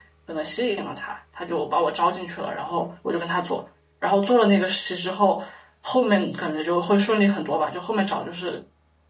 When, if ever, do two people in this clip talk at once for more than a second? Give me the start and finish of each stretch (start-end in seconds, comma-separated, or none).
none